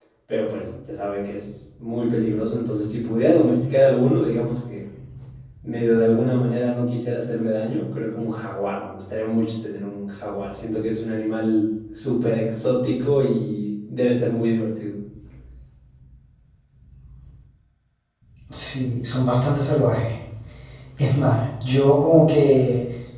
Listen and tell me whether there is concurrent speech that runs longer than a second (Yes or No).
No